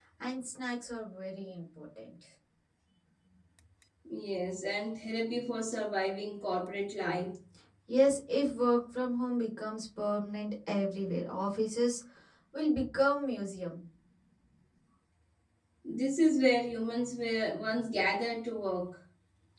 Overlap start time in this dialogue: none

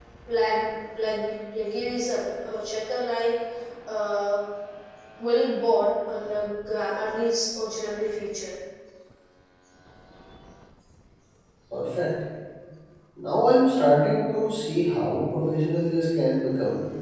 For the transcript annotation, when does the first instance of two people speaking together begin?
none

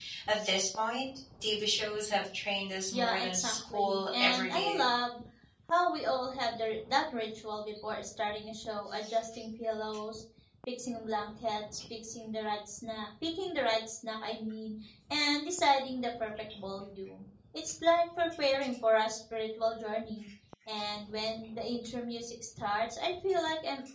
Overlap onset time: 3 s

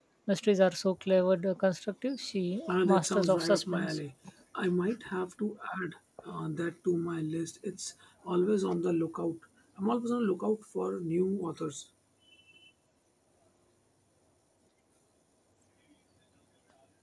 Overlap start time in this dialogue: 3 s

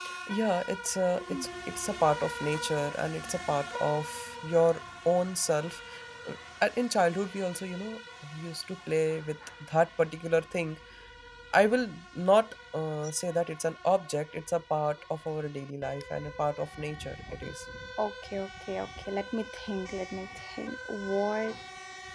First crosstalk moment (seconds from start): none

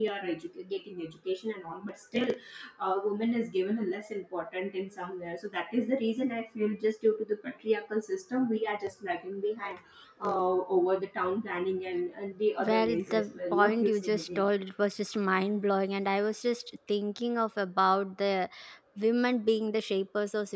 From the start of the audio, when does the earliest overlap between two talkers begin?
13 s

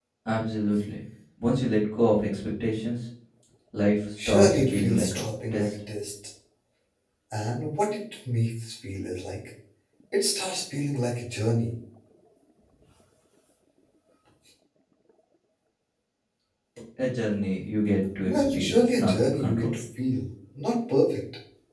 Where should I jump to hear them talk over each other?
4 s

